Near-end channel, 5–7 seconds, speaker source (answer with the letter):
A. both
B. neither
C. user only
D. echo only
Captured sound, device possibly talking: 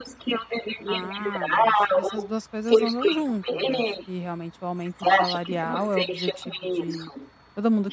A